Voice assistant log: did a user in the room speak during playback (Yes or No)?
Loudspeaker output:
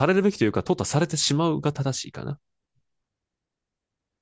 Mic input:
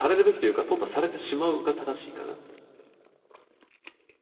No